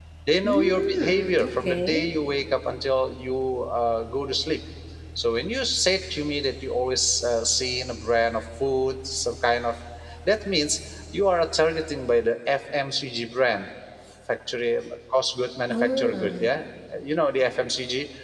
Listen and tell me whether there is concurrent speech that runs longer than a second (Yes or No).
Yes